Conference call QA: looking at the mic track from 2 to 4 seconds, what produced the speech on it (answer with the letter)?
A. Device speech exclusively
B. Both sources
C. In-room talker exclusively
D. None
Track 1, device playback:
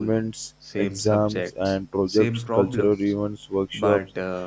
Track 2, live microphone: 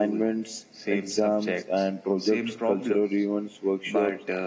A